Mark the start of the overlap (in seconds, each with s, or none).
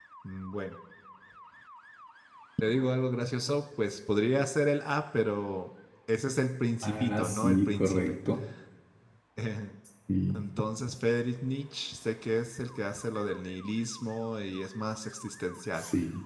6.8 s